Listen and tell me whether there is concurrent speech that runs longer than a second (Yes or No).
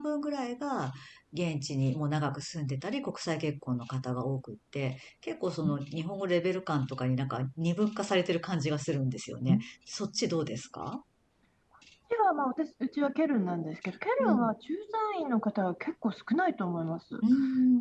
No